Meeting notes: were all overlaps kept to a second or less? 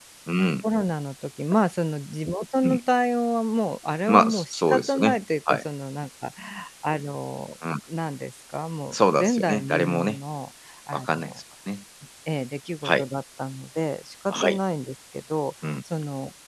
No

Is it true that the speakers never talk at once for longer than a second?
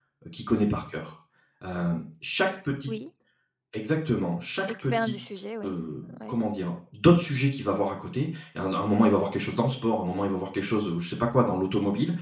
Yes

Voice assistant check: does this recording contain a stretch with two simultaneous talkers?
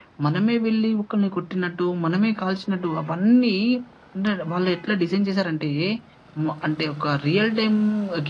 No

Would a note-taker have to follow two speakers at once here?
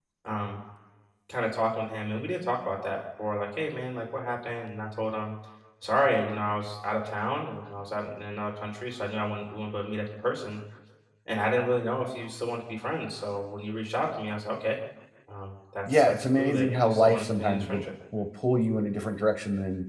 Yes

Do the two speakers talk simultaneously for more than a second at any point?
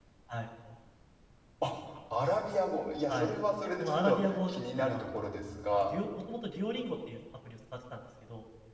Yes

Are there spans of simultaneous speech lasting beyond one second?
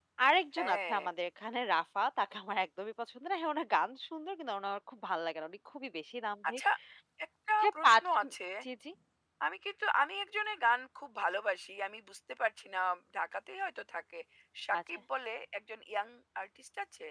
No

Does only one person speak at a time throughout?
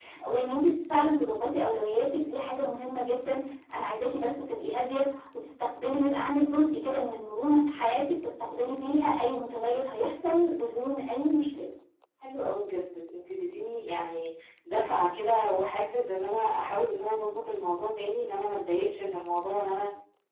Yes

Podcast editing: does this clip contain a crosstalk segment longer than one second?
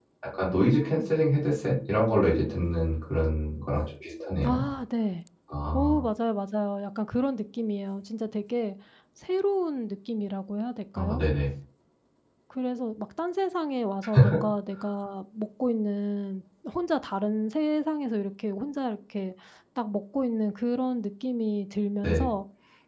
No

